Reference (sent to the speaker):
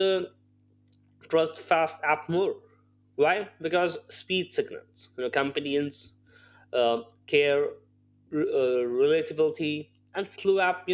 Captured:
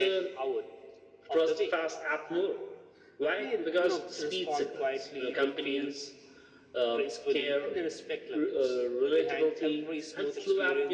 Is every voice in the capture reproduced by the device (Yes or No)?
No